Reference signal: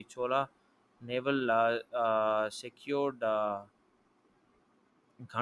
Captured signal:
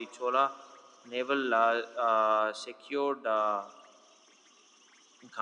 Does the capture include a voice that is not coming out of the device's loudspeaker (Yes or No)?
No